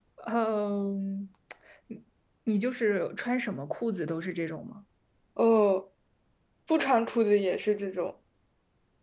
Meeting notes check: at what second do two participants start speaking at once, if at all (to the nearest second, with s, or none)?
none